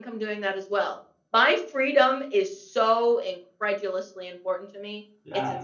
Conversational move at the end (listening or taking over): taking over